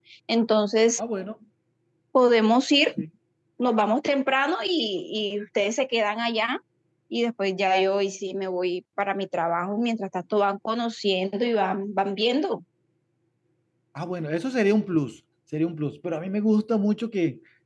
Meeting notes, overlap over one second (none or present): none